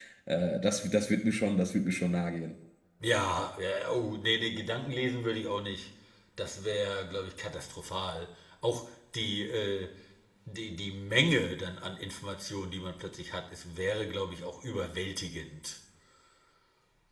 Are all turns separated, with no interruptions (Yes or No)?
Yes